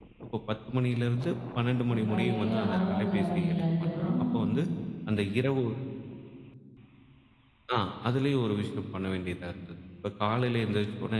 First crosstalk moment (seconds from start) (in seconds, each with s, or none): 1.9 s